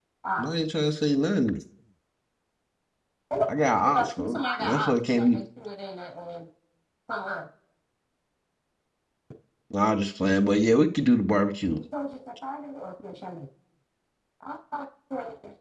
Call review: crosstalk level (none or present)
present